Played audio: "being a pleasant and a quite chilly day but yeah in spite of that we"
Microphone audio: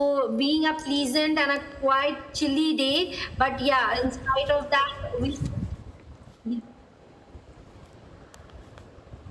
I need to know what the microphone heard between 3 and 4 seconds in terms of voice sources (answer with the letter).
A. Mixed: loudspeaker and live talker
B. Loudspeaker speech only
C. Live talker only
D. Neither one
B